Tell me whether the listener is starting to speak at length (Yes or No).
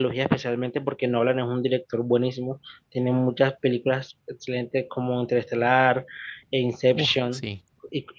No